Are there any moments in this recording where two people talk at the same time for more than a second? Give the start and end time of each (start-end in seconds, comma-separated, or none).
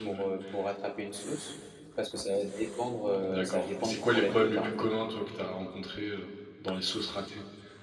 3.2-4.7